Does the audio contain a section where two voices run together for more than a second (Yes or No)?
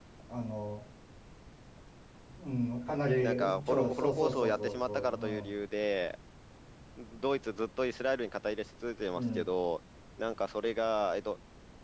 Yes